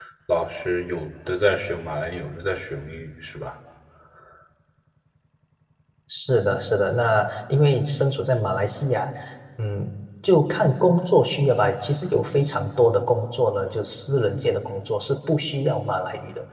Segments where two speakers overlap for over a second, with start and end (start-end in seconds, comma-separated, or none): none